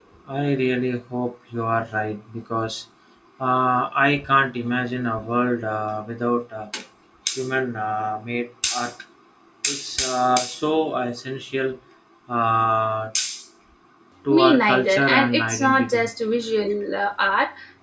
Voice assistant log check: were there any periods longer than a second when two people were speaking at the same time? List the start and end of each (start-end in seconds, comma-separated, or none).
14.3-16.1